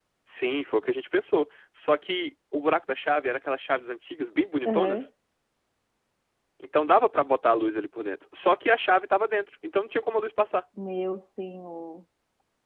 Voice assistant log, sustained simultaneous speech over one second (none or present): none